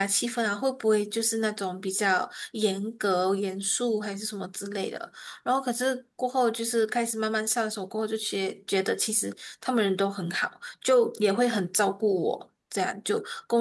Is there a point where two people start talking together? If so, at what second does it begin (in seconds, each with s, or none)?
none